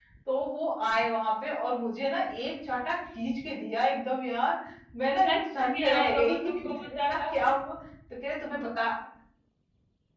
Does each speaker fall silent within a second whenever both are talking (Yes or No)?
No